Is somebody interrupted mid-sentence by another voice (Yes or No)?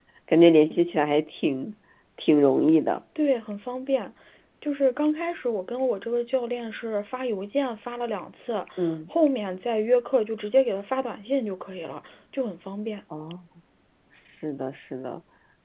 No